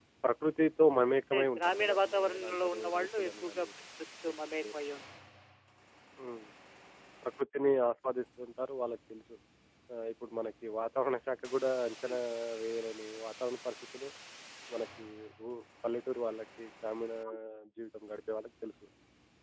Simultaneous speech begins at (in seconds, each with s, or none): 1.3 s